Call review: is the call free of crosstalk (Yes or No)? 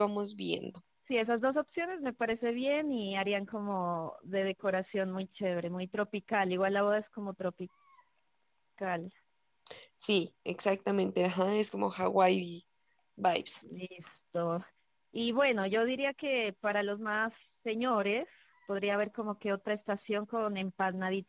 Yes